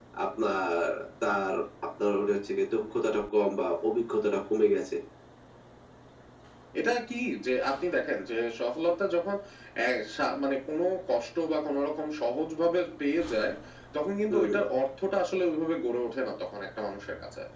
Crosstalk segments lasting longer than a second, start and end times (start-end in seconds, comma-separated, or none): none